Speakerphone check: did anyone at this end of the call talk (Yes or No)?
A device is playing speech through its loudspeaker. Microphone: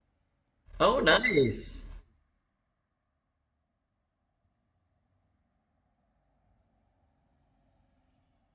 Yes